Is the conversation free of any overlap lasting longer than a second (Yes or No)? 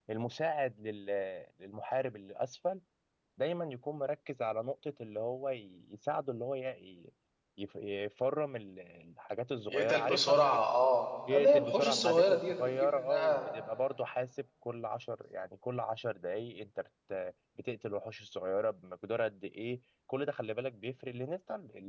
No